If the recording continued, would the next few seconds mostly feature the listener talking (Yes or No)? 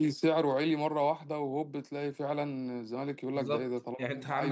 Yes